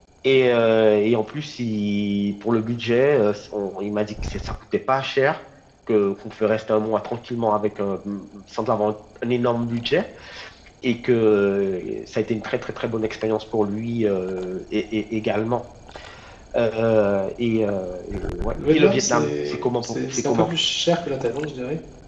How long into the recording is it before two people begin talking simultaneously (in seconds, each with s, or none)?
18.6 s